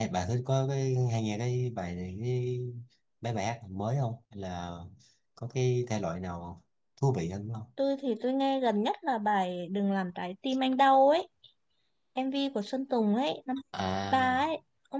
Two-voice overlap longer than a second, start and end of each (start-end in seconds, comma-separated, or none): none